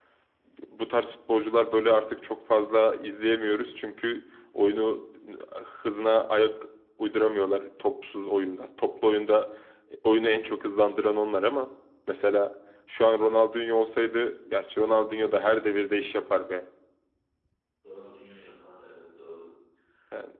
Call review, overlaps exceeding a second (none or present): none